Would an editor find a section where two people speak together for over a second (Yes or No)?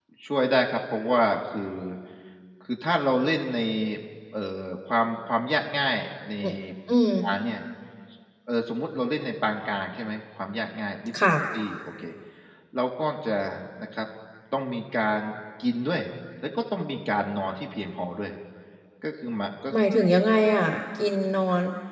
No